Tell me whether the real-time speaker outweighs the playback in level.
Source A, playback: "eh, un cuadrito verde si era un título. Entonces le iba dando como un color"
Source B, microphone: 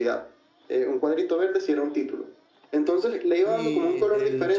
No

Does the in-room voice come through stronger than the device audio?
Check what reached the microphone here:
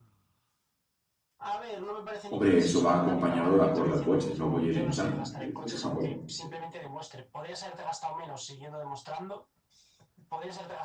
Yes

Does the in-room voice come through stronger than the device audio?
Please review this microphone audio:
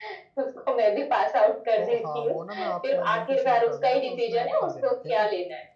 No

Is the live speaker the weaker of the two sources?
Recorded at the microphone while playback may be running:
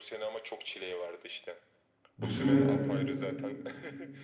No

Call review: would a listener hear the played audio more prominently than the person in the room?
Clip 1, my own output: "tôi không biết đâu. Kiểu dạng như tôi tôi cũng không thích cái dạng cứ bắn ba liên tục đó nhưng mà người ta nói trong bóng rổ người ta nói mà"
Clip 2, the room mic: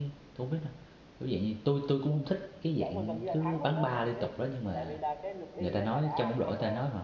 Yes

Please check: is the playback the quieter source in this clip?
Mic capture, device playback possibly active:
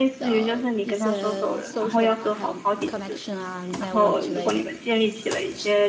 No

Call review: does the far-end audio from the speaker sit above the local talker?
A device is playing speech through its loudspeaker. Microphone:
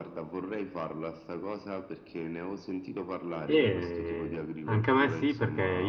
No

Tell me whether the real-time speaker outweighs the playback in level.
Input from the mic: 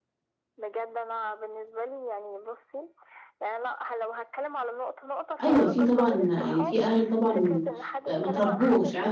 Yes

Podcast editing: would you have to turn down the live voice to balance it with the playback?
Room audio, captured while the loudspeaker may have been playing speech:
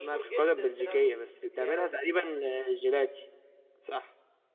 Yes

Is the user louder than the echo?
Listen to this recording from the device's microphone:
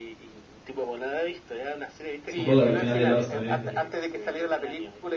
Yes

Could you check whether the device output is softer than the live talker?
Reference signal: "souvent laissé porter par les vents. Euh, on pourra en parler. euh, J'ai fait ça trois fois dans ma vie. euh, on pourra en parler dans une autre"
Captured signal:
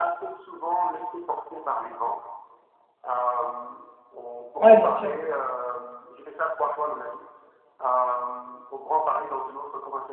Yes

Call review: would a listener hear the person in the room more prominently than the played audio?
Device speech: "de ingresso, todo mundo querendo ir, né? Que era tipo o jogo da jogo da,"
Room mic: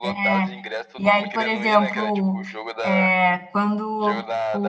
Yes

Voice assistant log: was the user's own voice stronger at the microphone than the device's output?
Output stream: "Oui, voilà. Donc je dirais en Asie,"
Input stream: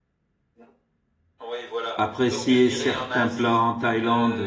Yes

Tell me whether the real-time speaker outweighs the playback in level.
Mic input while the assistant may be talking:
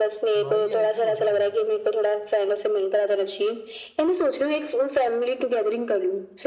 No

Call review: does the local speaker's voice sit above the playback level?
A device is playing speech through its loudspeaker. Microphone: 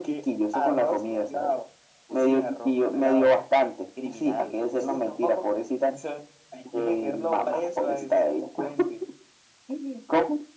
No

